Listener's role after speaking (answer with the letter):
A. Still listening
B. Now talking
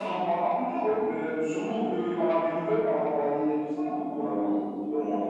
B